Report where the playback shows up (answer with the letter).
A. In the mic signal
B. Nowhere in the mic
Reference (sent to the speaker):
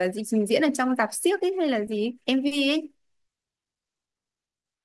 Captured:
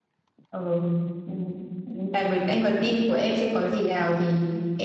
B